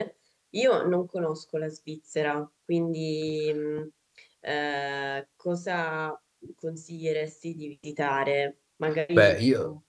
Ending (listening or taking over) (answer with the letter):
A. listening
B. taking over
A